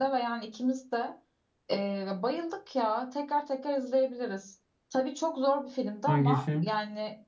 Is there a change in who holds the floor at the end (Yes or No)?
No